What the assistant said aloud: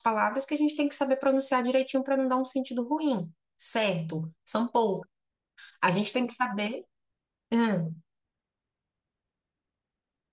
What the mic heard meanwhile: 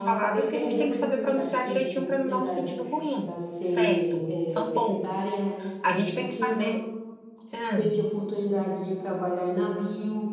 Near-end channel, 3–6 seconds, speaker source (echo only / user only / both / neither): both